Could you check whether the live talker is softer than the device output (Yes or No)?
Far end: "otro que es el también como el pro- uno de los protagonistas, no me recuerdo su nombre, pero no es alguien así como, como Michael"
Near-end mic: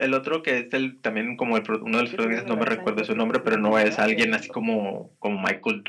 Yes